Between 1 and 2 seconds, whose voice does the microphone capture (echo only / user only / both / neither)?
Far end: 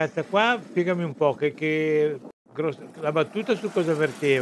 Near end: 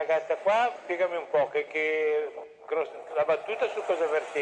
echo only